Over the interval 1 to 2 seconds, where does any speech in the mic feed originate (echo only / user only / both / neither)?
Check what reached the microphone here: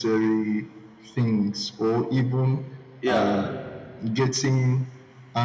echo only